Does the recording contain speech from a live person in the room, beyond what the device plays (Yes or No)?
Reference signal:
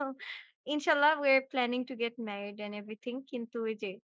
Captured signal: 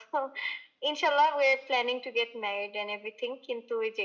No